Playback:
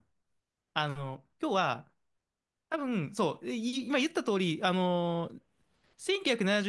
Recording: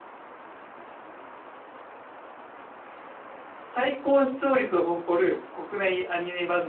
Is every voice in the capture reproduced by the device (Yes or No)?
No